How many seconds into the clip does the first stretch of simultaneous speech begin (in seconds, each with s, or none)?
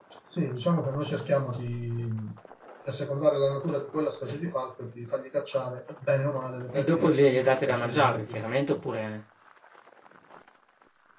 6.8 s